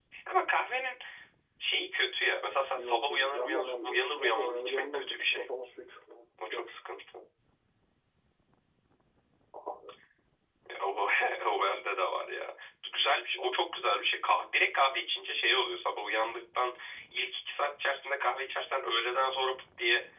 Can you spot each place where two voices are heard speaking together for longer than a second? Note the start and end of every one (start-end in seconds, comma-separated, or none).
2.8-5.5